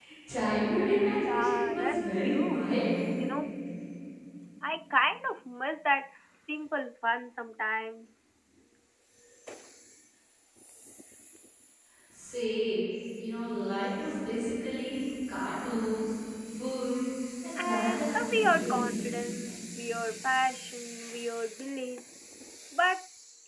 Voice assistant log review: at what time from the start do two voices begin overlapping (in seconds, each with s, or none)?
1.1 s